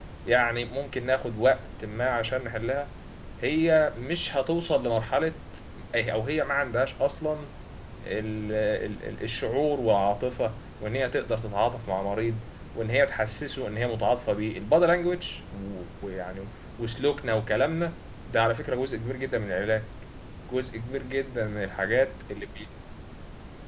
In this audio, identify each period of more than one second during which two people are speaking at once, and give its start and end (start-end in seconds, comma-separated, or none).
none